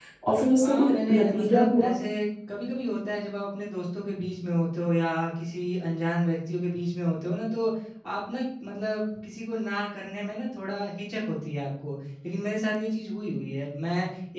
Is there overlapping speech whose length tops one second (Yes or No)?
Yes